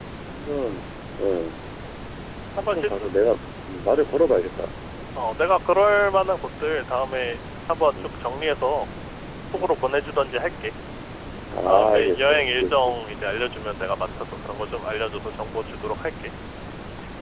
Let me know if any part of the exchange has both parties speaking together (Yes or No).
Yes